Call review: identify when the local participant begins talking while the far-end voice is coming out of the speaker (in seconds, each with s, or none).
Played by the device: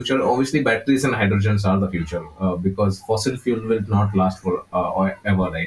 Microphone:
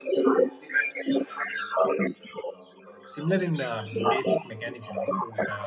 3.0 s